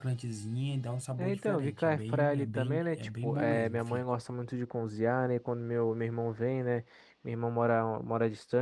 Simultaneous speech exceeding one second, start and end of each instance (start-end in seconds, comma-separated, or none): 1.2-4.0